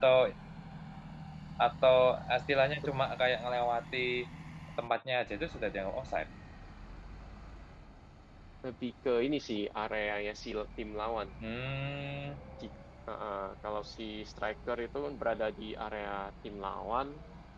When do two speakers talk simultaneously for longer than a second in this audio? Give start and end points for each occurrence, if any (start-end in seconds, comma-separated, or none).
none